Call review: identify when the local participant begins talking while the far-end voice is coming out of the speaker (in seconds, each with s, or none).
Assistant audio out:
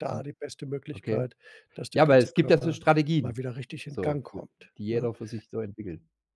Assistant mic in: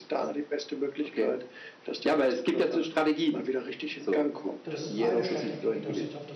4.6 s